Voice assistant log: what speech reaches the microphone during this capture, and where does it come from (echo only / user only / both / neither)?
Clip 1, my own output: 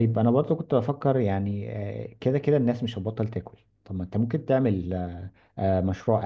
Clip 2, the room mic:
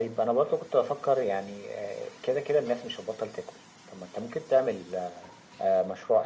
echo only